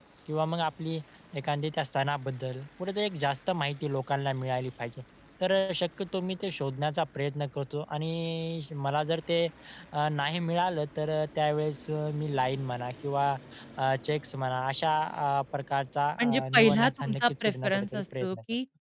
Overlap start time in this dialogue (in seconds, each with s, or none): 16.2 s